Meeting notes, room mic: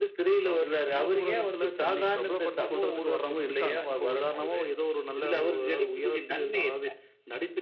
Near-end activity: none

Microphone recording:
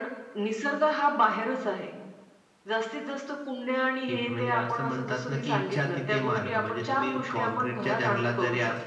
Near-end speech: none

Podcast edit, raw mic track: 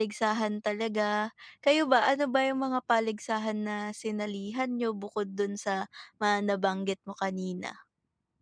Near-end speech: present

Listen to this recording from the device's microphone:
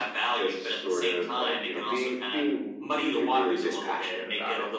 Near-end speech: none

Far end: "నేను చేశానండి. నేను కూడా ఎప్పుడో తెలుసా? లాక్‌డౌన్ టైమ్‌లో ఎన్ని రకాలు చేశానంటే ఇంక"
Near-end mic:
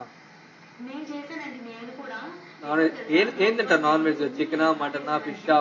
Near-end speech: present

